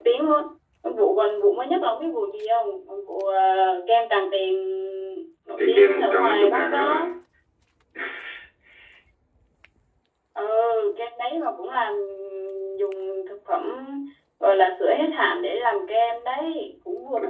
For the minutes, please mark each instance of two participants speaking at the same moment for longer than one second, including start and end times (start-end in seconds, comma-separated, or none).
5.6-7.1